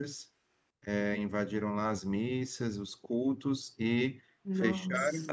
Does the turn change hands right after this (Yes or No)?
No